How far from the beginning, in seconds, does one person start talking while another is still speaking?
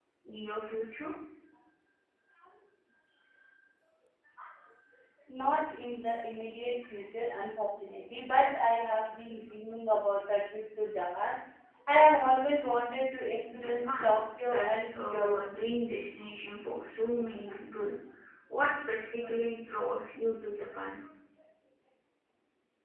13.5 s

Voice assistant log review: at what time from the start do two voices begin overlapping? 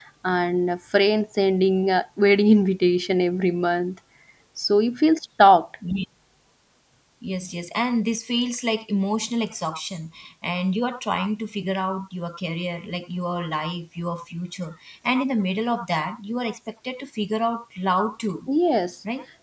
none

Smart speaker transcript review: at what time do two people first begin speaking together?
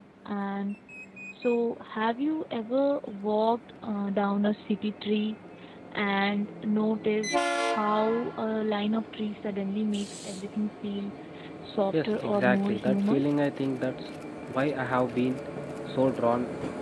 11.9 s

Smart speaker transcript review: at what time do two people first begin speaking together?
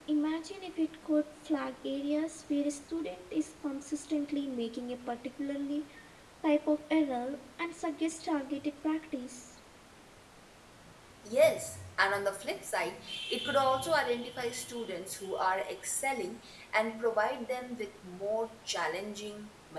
none

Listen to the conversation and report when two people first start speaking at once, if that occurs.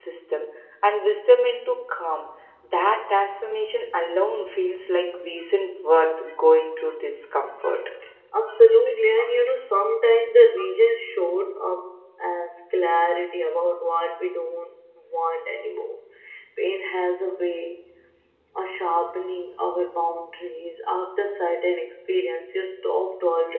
none

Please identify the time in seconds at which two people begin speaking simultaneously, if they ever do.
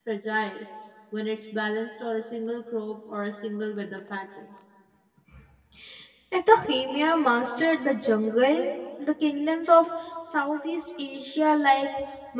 none

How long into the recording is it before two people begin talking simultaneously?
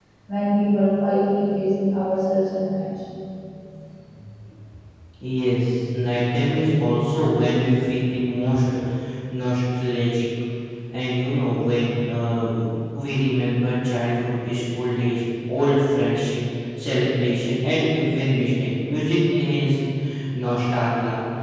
none

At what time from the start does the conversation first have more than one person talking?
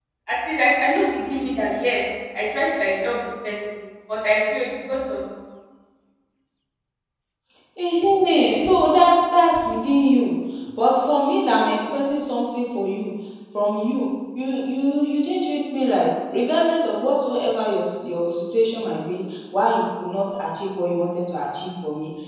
none

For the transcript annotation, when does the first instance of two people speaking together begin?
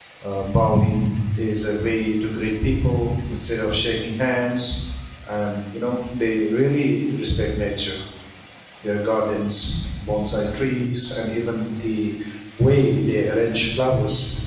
none

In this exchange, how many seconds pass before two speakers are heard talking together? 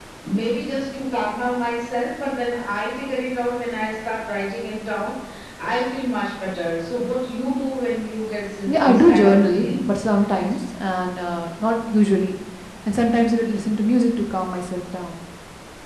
8.7 s

